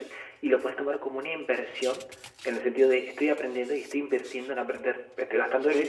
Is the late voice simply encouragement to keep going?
Yes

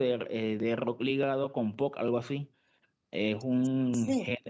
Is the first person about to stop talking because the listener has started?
No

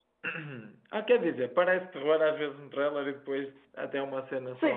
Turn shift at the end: Yes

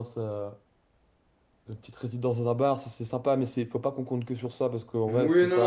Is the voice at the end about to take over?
Yes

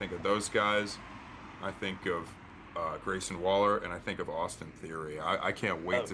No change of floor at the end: Yes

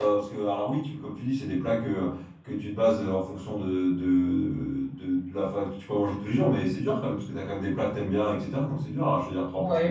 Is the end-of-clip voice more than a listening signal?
Yes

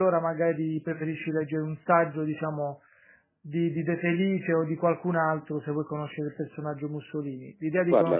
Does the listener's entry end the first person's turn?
No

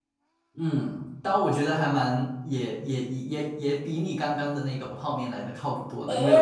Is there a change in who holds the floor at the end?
Yes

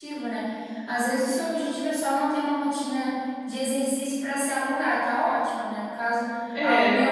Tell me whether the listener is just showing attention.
Yes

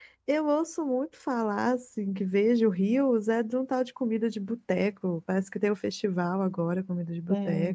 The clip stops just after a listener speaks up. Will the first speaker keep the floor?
No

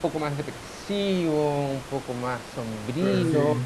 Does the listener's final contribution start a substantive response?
No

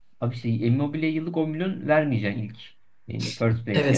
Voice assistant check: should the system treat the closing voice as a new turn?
Yes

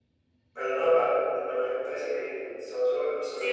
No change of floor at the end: No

